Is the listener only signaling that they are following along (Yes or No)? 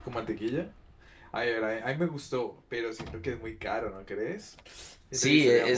No